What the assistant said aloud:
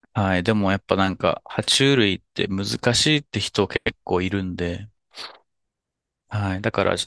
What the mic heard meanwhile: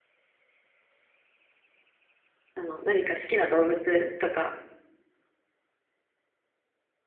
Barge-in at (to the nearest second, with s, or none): 3 s